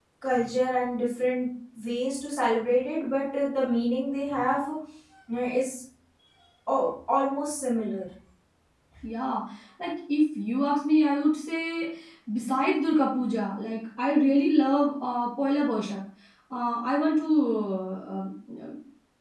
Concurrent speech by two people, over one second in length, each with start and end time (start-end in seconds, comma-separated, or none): none